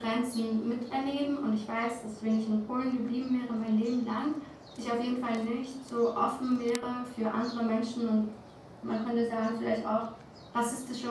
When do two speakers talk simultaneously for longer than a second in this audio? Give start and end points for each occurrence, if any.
none

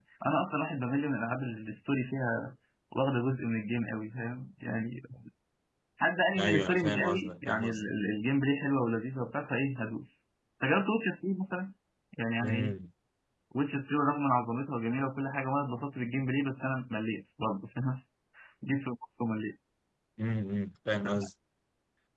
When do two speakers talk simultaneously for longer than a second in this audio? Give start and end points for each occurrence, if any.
6.4-7.9

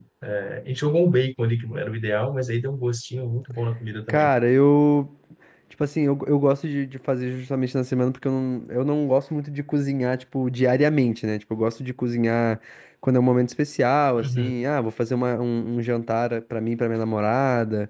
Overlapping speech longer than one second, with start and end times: none

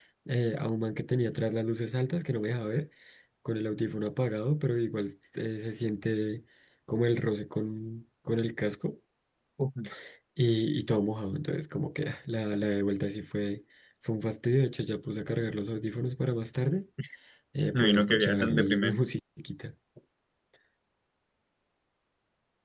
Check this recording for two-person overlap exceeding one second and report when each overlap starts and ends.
17.7-19.1

